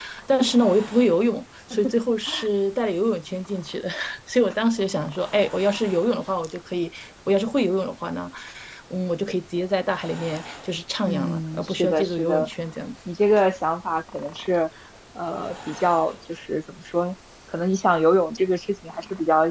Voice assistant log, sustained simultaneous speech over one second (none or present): present